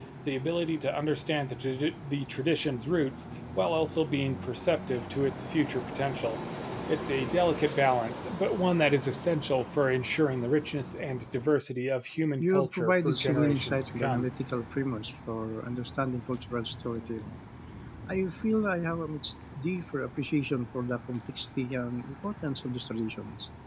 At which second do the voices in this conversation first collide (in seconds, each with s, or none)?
12.4 s